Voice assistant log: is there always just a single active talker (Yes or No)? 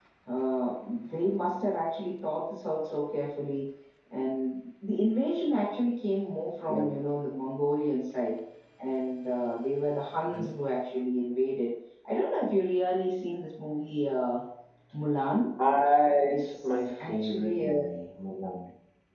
No